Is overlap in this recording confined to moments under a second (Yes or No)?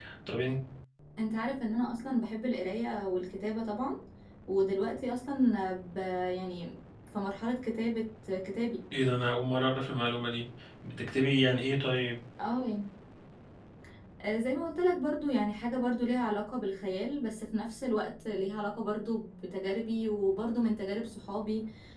Yes